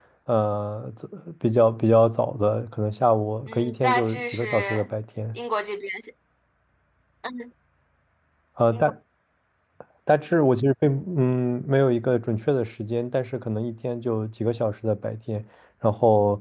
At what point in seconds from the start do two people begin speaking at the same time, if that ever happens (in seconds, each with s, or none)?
3.5 s